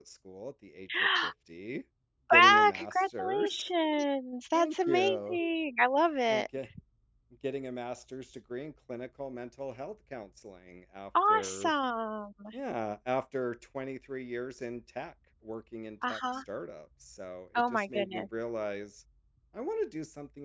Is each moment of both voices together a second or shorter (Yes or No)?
No